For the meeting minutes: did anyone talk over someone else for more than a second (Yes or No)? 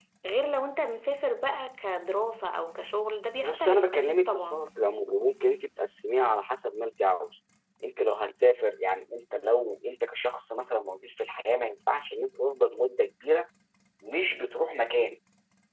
Yes